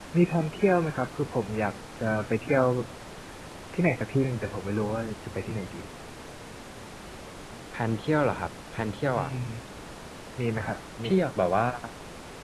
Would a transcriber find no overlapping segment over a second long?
Yes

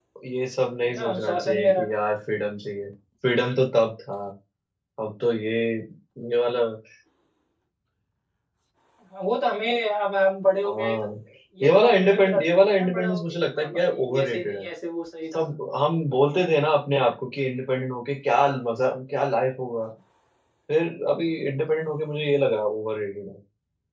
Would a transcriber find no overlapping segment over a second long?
No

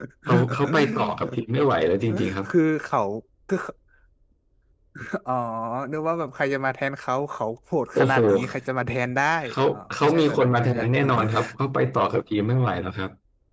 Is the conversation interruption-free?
No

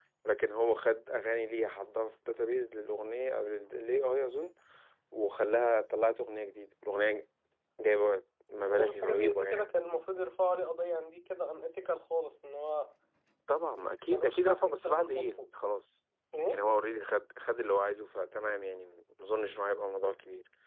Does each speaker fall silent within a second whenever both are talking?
No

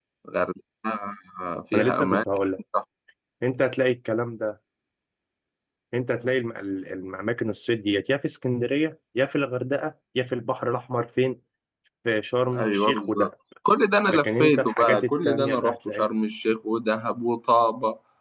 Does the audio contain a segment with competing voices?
Yes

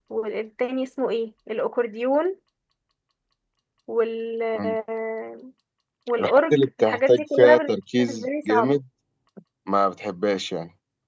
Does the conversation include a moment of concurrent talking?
Yes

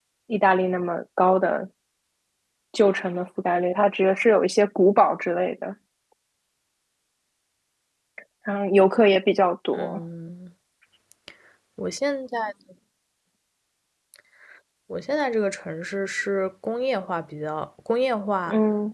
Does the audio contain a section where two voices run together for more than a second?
No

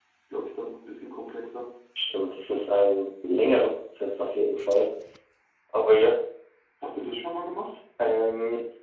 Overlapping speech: No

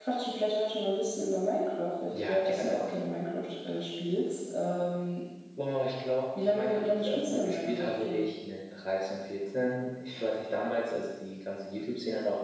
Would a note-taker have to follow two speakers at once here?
Yes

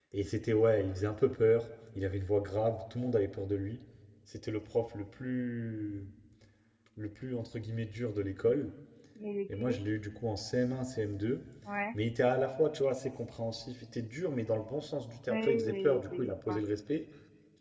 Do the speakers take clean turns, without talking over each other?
No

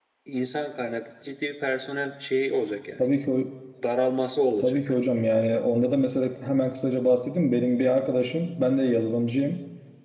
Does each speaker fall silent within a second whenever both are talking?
Yes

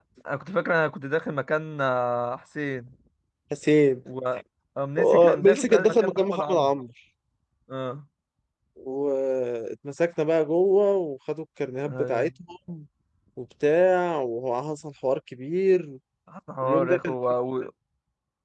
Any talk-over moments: Yes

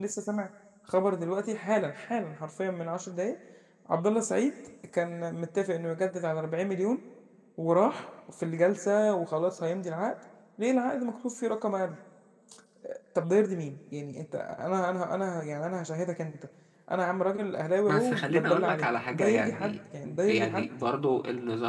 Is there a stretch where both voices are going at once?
Yes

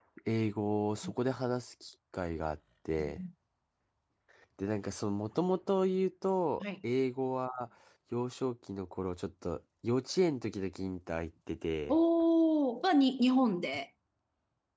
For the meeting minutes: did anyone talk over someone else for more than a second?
No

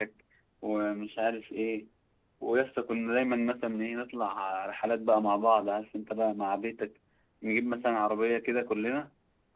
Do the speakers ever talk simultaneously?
No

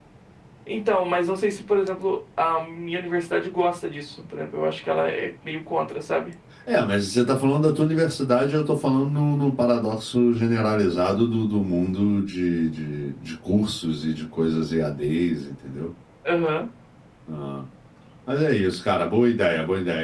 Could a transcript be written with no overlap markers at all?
Yes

